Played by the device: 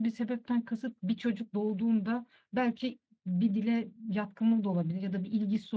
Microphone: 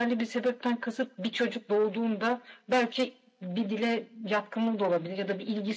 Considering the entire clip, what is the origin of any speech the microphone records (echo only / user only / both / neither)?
echo only